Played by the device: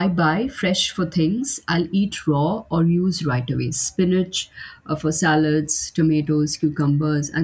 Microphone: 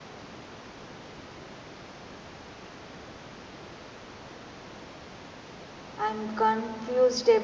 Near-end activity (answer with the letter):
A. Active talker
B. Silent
A